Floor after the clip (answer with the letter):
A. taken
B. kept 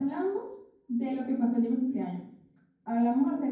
B